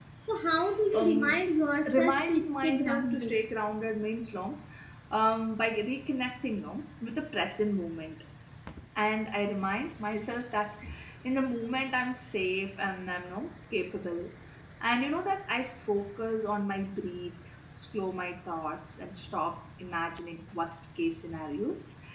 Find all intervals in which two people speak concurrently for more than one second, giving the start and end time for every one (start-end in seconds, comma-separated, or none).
2.0-3.4